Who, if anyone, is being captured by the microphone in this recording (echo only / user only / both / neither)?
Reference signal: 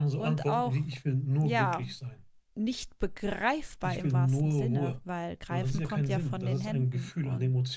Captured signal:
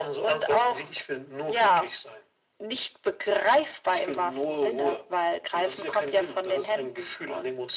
echo only